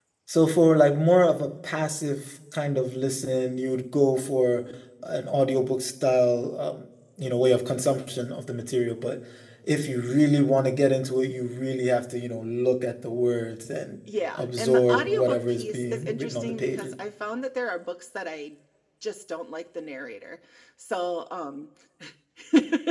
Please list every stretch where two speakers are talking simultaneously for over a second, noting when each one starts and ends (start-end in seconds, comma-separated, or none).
14.3-16.9